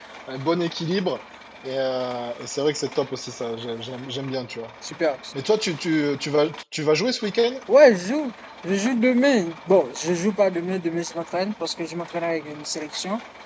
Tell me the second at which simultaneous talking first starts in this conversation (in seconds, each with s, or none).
none